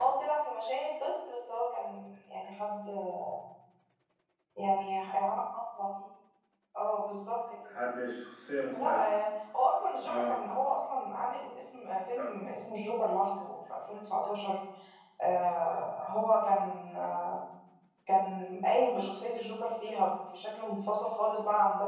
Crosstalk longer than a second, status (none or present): none